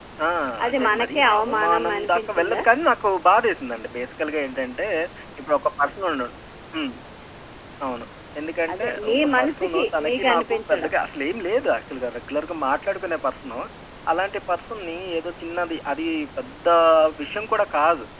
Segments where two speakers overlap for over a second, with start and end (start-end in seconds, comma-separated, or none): 0.7-2.6, 8.7-10.9